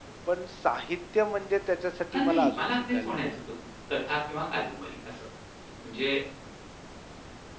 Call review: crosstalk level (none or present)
present